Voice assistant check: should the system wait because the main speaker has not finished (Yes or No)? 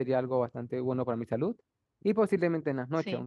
Yes